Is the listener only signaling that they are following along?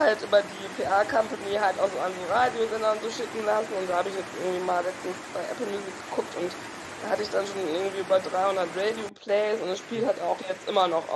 Yes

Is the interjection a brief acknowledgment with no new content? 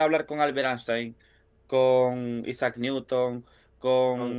Yes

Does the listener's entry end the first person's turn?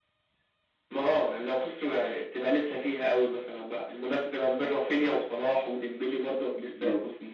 Yes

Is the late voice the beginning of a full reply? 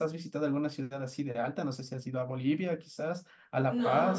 Yes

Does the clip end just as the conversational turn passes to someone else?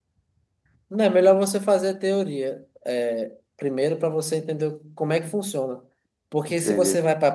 No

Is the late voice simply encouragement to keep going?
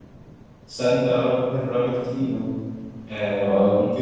Yes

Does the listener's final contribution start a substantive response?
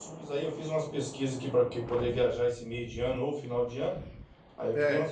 No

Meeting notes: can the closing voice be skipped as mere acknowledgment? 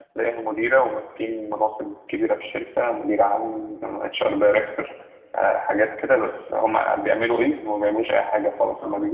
Yes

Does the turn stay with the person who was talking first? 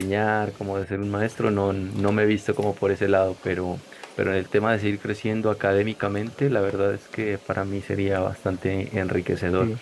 Yes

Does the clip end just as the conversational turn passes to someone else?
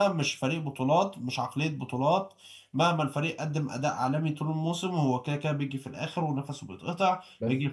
No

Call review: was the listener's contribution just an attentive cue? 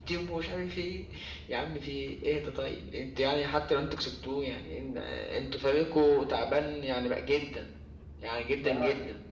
No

